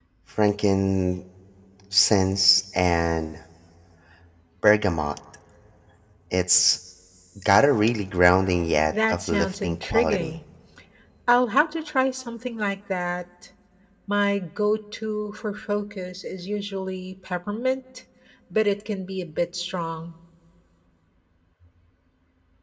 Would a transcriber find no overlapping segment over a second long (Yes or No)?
No